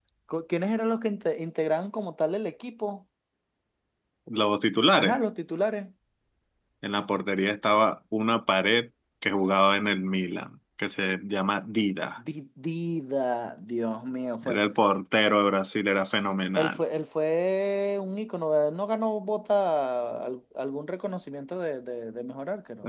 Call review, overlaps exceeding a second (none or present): none